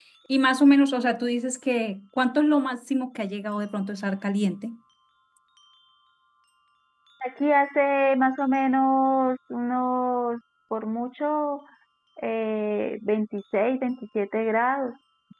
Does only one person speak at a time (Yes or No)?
Yes